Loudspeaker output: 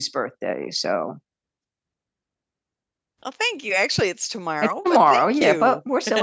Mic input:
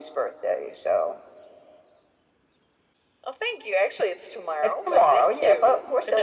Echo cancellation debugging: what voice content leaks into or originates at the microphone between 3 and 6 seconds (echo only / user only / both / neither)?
echo only